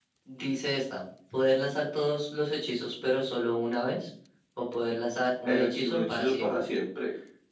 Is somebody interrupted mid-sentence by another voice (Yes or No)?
Yes